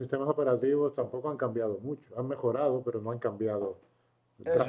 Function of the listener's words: taking over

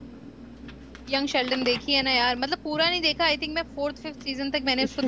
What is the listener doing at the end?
taking over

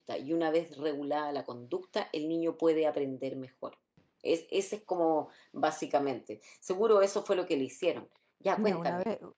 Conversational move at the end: taking over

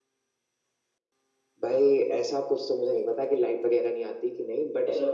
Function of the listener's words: listening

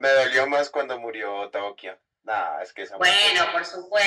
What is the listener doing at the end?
taking over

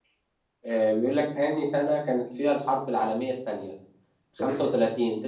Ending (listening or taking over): listening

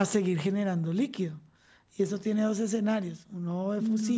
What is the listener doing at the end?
listening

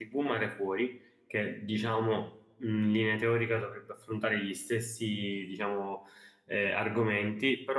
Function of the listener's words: listening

